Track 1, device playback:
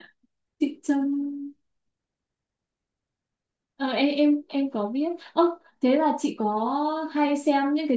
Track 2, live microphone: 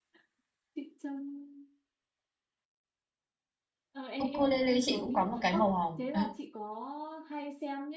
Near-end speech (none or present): present